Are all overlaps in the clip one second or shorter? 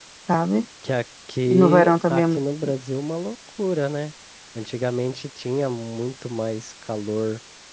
No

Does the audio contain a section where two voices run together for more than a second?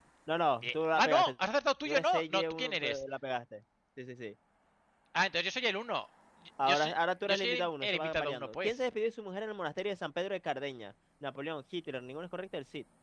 Yes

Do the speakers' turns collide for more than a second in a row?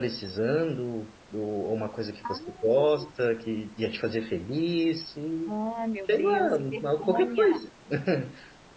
Yes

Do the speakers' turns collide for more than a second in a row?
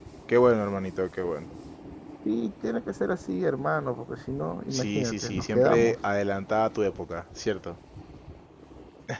Yes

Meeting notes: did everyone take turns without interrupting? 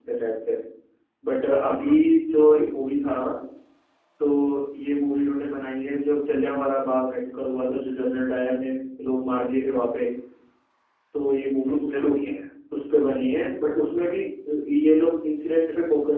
No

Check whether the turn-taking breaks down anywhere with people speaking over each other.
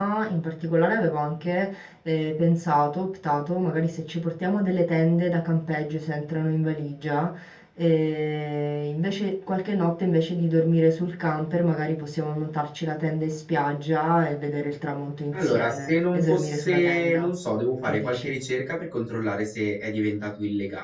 Yes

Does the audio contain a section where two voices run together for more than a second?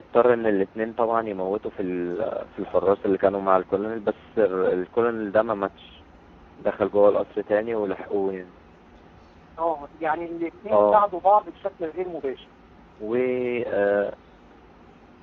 No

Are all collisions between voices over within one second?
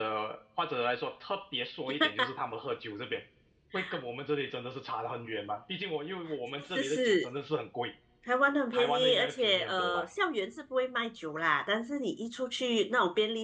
No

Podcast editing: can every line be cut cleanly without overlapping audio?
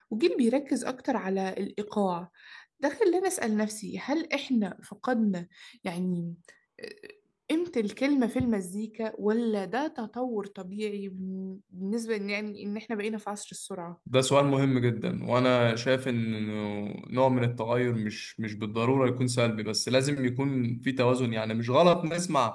Yes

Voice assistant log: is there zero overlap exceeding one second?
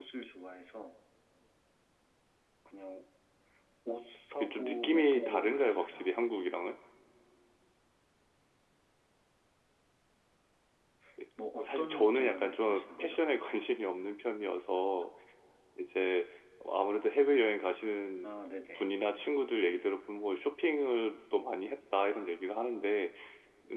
No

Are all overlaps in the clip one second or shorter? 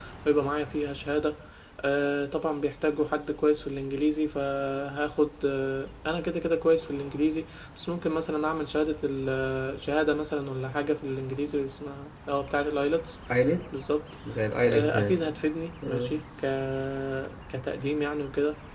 Yes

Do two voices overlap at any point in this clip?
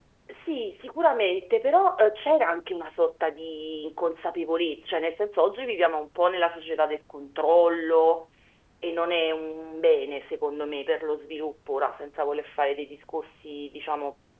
No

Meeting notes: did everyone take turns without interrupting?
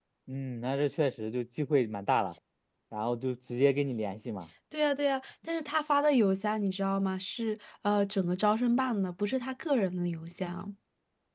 Yes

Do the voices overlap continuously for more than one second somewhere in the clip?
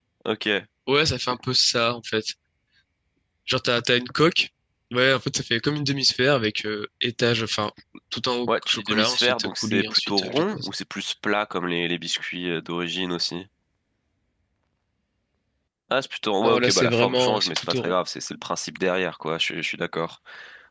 Yes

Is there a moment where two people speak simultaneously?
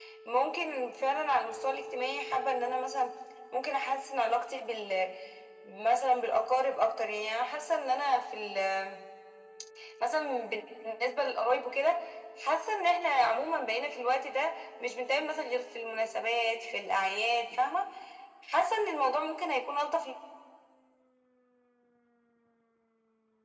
No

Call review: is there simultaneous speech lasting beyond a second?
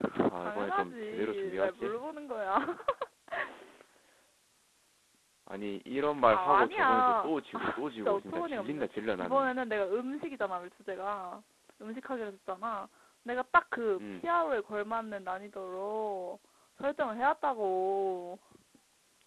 Yes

